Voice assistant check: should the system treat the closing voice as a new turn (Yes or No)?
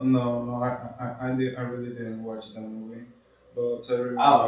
No